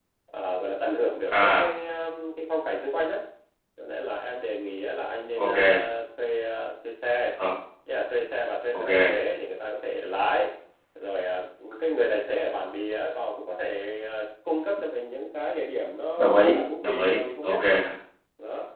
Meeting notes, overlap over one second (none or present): present